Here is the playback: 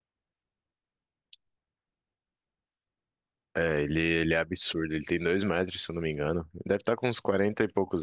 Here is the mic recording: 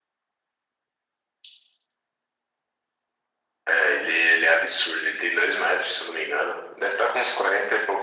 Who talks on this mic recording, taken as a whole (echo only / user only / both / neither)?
echo only